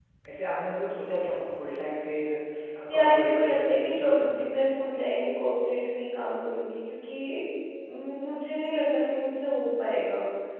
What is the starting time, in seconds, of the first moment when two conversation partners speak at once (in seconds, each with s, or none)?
2.9 s